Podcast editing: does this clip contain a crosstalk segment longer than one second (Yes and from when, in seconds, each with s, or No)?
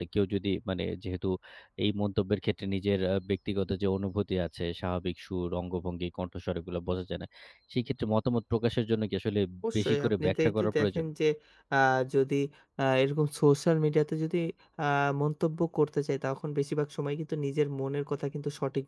Yes, from 9.8 s